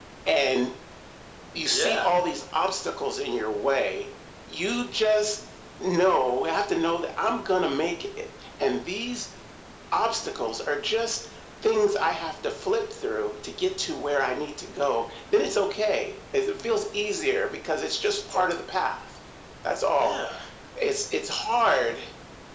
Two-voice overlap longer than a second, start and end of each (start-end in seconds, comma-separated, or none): none